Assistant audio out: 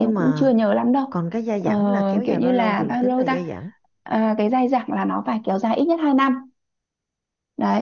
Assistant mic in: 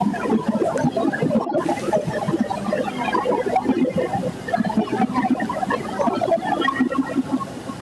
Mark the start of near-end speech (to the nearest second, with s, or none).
none